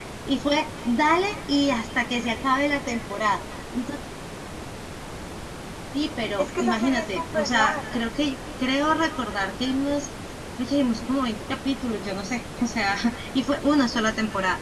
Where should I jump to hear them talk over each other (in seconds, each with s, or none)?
6.4 s